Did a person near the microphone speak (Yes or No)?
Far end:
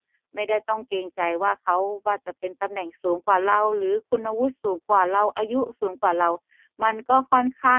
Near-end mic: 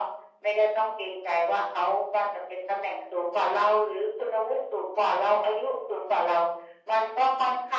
No